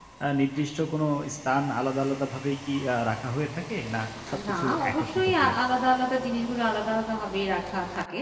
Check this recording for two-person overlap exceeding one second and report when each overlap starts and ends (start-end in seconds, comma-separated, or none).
4.3-5.6